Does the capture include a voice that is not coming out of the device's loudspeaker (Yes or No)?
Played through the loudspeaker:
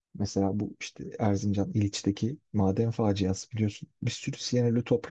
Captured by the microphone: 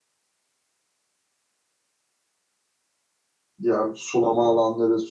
Yes